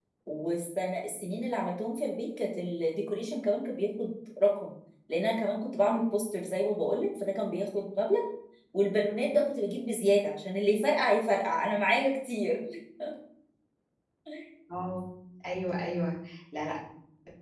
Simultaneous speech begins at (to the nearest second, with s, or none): none